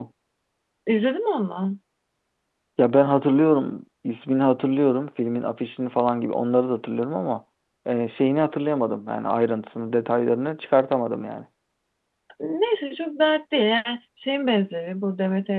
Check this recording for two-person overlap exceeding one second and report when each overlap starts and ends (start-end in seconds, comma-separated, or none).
none